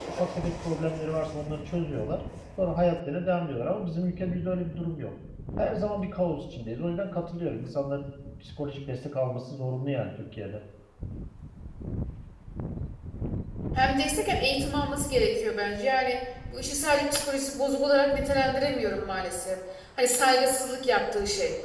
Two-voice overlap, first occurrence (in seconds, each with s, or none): none